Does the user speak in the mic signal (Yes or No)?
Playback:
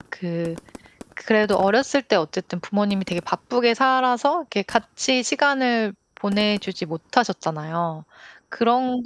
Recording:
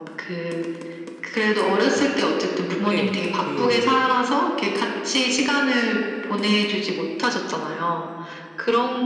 Yes